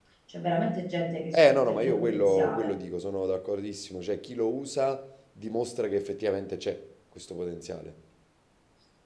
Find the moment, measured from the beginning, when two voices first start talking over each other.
1.3 s

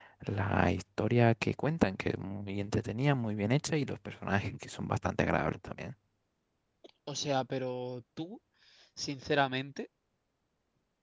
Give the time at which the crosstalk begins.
none

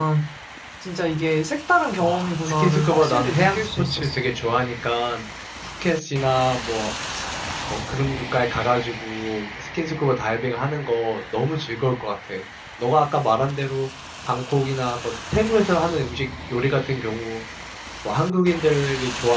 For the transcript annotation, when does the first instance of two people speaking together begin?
2.0 s

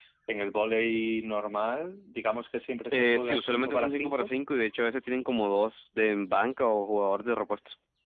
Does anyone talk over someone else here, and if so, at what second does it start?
2.9 s

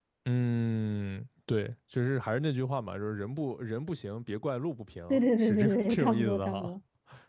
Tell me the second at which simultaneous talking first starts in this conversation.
5.1 s

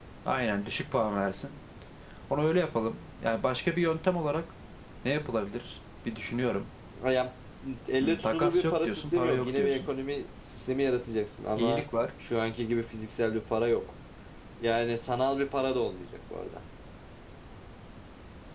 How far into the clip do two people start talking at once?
8.0 s

